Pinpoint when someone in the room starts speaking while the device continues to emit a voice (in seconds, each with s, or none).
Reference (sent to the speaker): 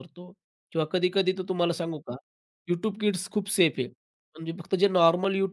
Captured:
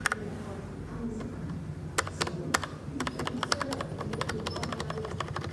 none